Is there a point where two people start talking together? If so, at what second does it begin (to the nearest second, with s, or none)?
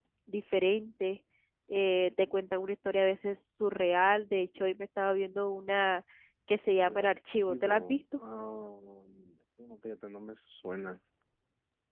7 s